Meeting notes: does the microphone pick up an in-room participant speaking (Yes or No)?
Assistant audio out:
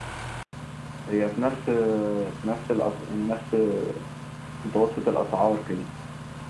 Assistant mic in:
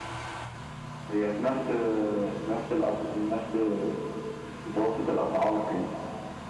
No